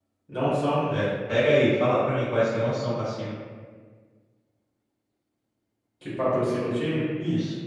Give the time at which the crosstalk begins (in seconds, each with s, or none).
none